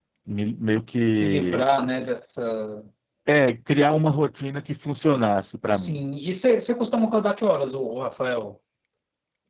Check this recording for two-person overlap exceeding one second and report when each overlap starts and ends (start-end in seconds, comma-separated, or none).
none